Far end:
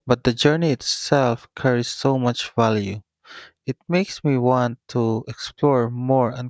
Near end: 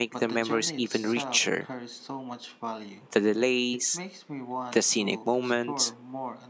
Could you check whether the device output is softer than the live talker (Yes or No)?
Yes